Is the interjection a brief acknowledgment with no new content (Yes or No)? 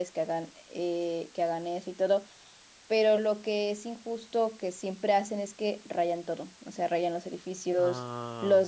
Yes